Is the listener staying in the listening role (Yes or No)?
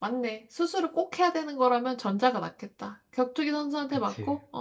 Yes